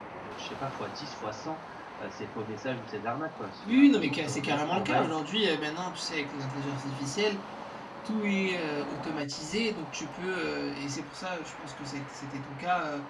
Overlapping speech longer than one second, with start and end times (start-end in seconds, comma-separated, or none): 3.7-5.1